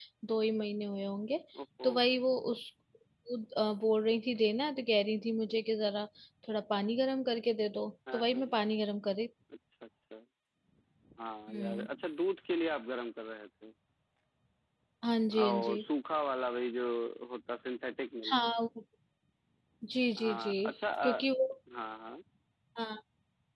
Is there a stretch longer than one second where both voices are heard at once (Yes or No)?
No